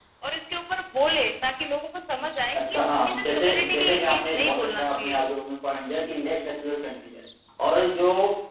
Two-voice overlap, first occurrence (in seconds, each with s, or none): 2.5 s